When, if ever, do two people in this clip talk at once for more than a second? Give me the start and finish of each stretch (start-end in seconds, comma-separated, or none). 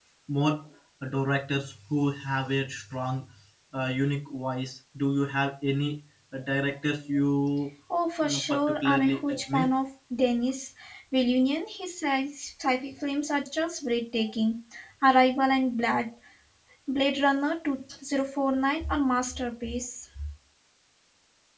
8.2-9.7